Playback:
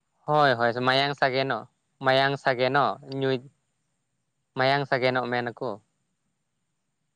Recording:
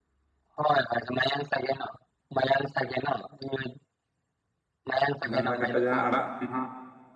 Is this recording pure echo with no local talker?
No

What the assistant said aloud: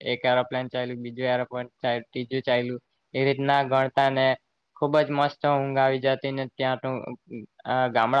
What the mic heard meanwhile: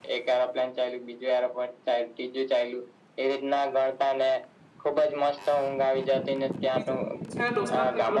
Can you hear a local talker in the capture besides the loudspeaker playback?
Yes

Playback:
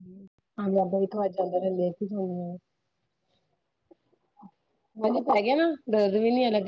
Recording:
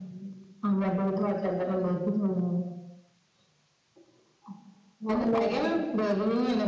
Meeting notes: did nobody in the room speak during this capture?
No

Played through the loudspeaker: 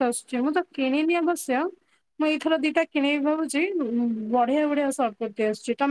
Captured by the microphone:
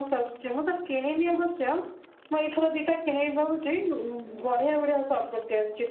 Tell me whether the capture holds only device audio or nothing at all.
Yes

